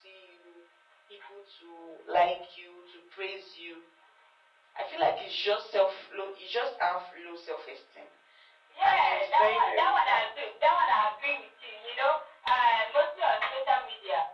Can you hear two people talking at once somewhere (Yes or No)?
Yes